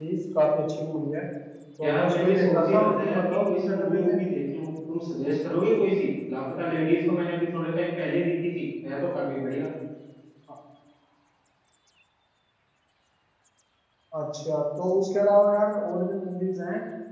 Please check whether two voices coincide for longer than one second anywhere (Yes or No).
Yes